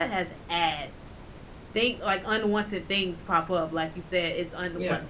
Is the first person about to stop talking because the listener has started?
No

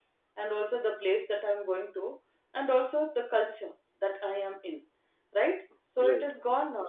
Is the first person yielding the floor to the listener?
No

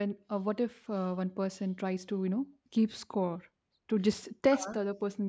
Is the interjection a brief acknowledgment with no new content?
Yes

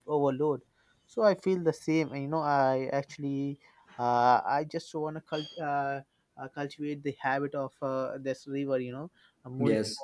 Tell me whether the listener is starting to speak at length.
No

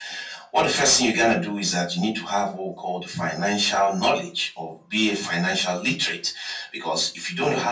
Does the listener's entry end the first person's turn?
No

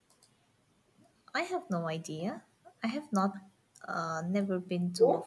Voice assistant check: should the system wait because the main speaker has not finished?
No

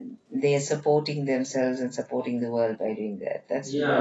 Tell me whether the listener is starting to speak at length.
Yes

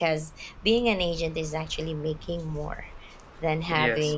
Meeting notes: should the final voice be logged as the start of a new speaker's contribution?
No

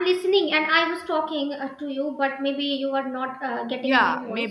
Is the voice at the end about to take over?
Yes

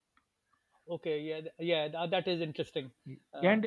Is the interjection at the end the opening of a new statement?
Yes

